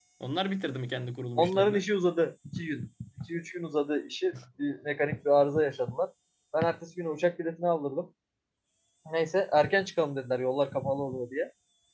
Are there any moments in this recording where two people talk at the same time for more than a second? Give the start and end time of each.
none

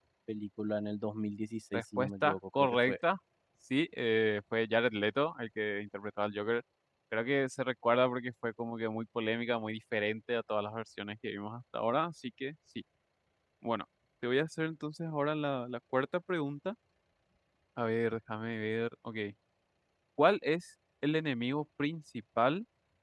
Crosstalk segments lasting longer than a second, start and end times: 1.7-3.0

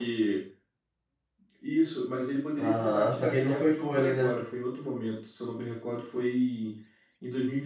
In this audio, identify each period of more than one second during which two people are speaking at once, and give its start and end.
2.6-4.3

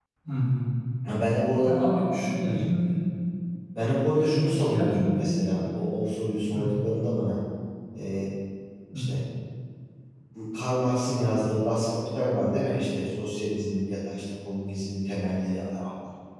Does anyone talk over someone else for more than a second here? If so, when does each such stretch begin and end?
4.2-5.6

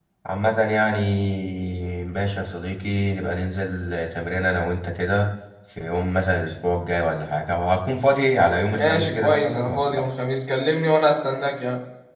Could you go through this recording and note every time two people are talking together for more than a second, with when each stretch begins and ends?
8.7-10.1

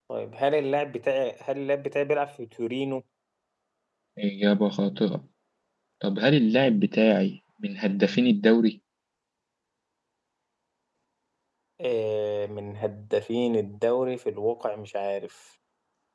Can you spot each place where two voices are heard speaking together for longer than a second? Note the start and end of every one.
none

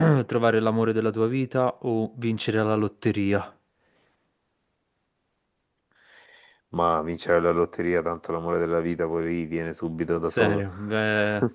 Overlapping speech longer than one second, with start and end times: none

